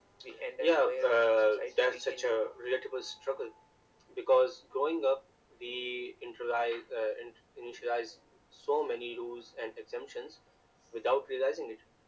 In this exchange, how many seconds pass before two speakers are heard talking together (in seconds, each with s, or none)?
0.6 s